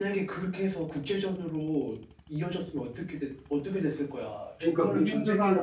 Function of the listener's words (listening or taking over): taking over